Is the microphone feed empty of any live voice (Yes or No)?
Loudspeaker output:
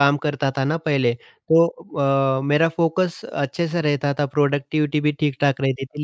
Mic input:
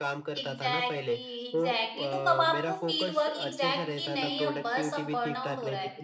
No